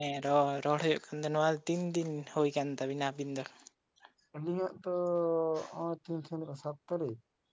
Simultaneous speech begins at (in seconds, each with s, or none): none